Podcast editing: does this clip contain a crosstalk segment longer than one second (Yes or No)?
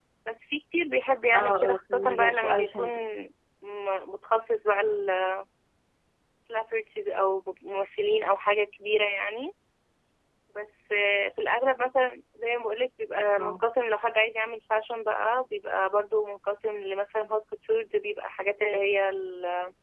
Yes